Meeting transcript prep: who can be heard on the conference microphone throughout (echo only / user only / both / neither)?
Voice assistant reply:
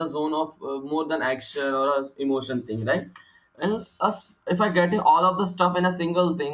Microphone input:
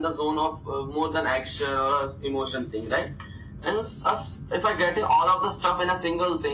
echo only